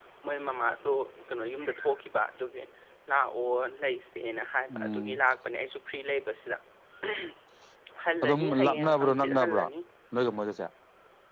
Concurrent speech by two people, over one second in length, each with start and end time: 8.2-9.6

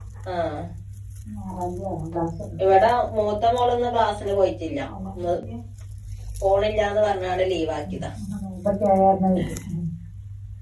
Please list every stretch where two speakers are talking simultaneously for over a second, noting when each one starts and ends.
none

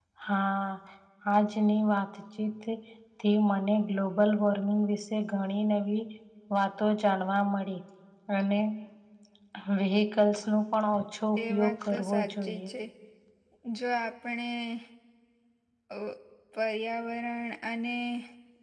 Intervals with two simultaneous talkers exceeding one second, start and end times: 11.4-12.6

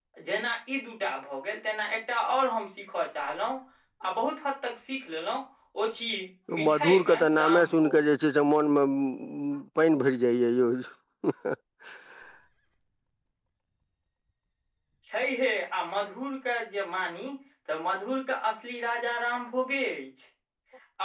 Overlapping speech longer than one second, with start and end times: 6.7-8.0

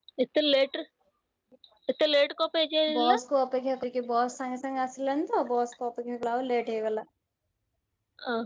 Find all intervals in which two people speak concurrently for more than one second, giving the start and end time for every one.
none

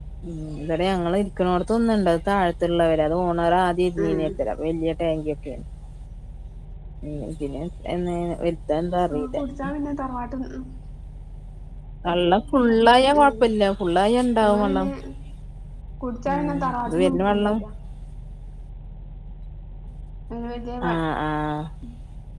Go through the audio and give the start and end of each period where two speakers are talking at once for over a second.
16.3-17.6

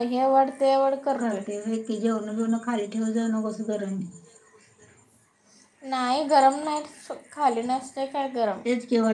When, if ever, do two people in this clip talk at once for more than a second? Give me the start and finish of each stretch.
none

